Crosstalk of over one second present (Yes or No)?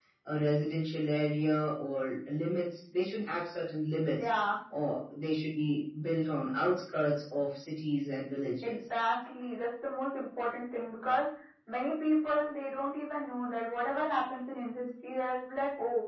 No